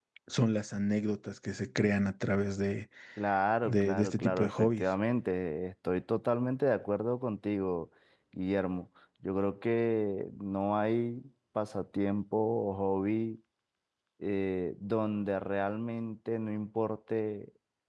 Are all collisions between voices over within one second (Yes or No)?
No